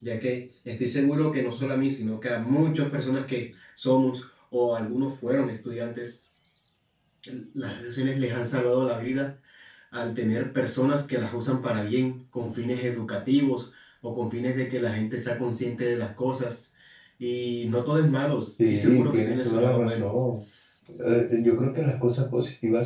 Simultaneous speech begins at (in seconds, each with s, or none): 18.6 s